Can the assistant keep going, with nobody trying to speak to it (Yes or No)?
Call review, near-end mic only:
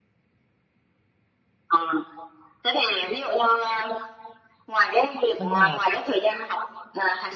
No